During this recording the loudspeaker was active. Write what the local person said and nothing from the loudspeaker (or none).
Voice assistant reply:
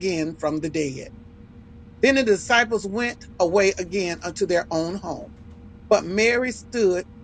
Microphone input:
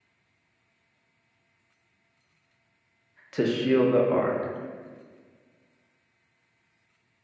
to shield the ark.